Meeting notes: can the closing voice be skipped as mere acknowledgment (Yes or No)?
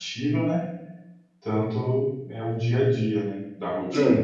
No